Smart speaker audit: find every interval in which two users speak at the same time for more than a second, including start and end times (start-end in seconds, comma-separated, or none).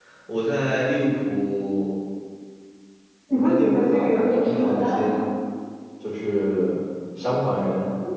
3.3-5.1